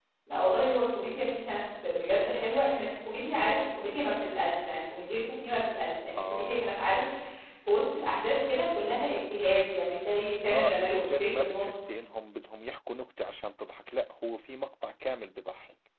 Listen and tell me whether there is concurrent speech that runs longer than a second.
Yes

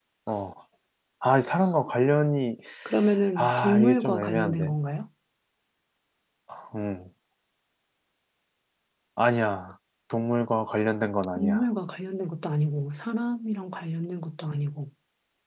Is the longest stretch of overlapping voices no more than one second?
No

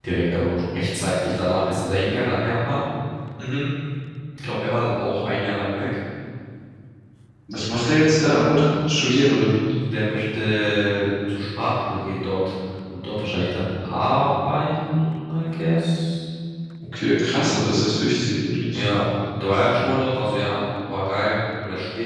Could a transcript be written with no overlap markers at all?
Yes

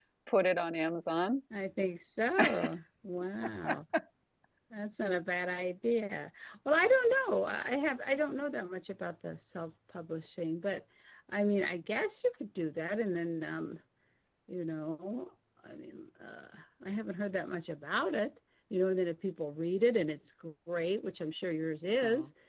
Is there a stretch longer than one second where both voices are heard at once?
No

